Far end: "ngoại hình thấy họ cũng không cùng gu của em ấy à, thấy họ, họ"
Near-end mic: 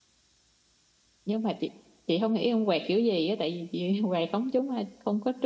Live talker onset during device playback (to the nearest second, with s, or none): 1 s